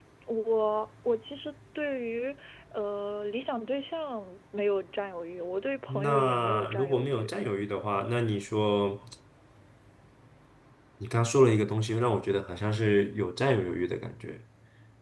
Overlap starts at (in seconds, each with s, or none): 5.9 s